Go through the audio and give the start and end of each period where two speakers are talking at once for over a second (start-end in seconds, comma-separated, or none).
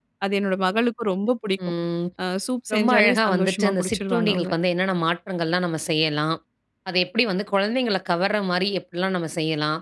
2.7-4.5